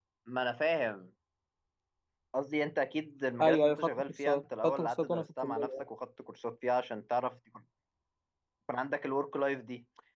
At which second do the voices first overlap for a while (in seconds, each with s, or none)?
3.4 s